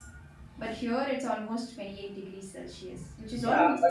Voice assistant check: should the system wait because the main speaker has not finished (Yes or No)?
No